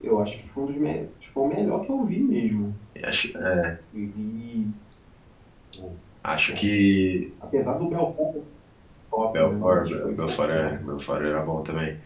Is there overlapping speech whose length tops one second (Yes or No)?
Yes